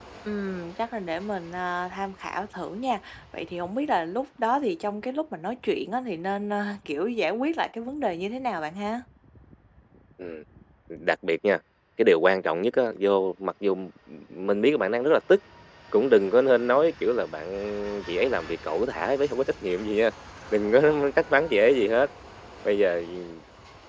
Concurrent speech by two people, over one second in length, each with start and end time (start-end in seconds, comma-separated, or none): none